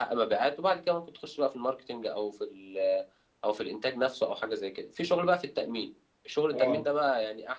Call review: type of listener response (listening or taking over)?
listening